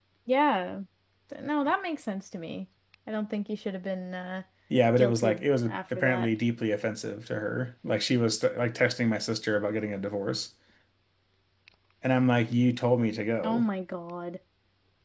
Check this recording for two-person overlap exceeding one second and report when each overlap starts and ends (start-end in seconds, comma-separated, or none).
5.0-6.3